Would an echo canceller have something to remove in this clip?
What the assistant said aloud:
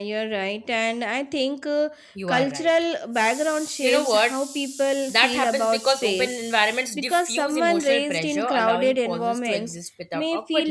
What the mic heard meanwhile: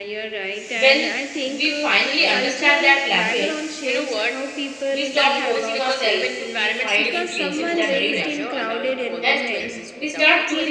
Yes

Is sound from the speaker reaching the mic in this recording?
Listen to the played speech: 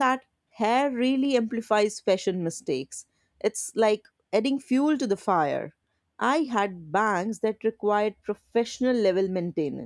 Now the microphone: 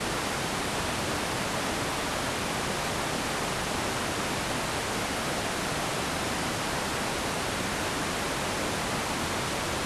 No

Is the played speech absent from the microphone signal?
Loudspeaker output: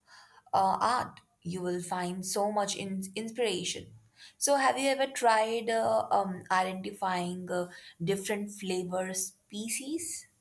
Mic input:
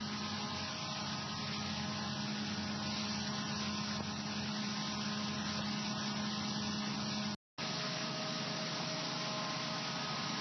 Yes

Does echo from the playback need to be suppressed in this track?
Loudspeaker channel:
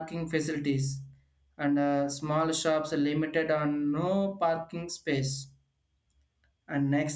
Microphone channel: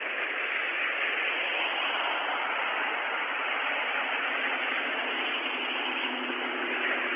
No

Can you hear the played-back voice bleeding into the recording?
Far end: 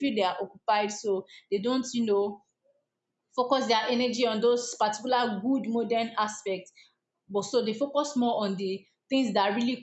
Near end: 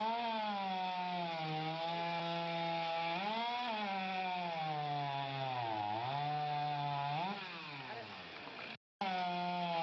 No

